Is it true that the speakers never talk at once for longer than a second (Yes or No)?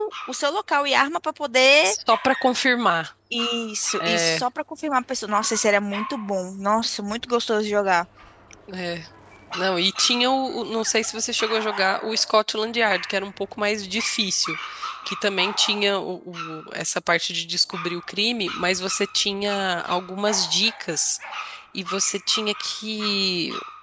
Yes